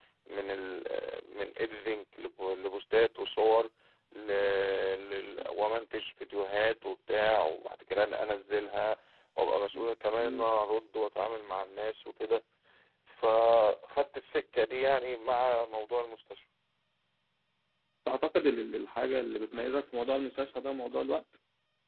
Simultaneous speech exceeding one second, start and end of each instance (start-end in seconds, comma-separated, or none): none